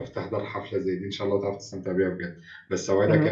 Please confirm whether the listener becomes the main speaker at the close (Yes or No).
No